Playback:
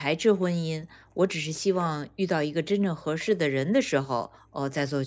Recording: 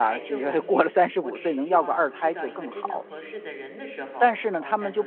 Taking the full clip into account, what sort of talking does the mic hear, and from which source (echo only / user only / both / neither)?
both